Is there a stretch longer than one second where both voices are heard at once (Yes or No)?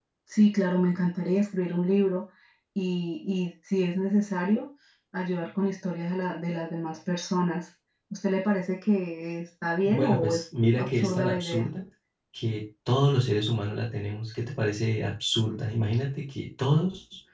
Yes